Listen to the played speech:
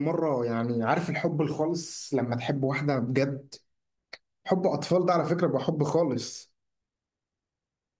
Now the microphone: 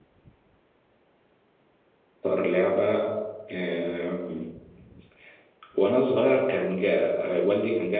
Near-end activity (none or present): present